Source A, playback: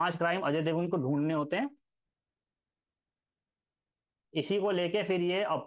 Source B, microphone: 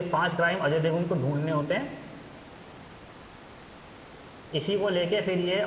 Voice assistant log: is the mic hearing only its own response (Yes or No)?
Yes